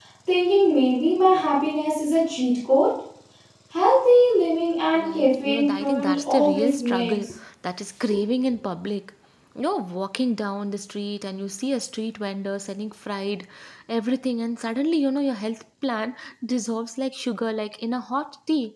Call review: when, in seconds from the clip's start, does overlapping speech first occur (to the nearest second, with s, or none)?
5 s